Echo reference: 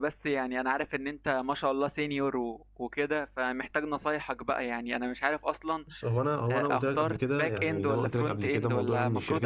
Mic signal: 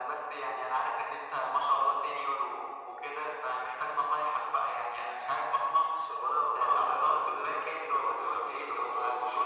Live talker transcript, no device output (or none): none